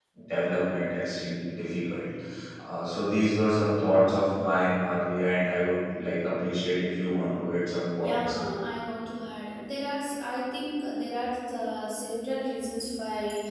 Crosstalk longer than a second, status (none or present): none